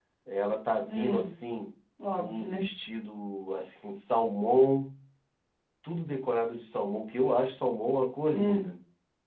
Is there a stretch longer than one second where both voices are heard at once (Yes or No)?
No